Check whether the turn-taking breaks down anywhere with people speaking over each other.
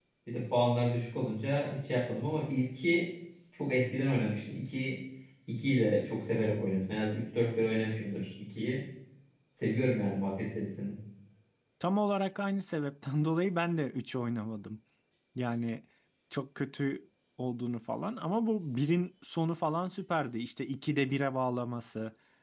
No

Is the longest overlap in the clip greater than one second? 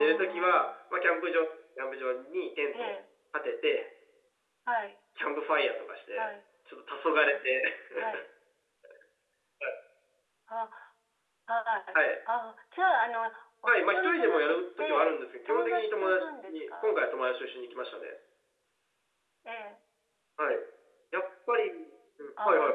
Yes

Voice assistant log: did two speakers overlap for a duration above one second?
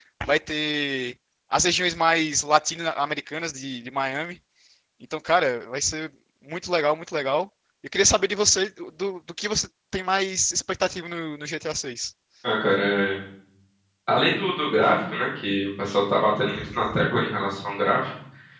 No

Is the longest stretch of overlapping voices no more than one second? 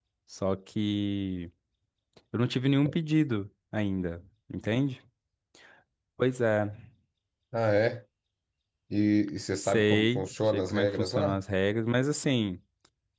No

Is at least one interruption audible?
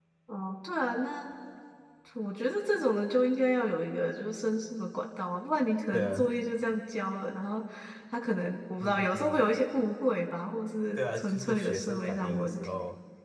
Yes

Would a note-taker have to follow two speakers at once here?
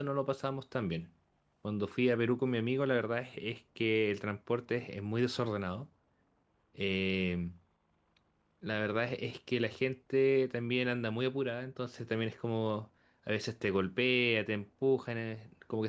No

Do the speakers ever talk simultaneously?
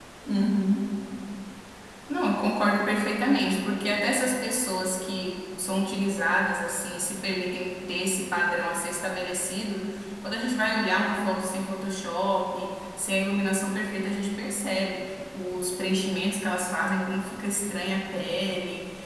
No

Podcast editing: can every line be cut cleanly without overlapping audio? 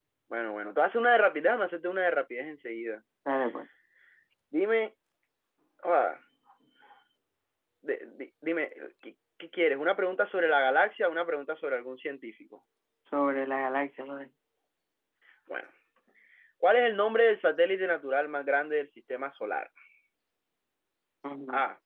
Yes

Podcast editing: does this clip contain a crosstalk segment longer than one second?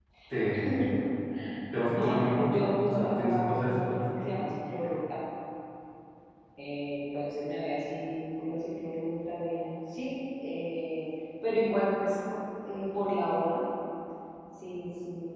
Yes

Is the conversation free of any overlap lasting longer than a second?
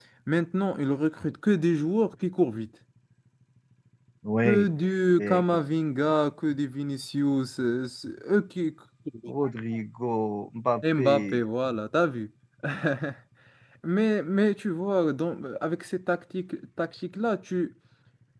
Yes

